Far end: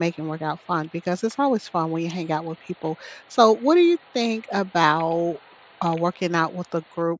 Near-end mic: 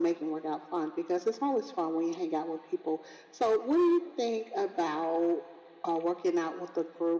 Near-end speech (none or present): none